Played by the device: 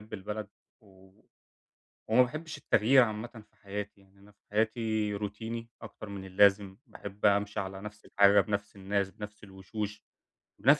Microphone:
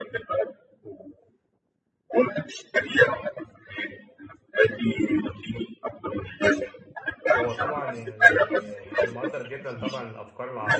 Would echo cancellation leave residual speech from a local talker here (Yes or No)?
Yes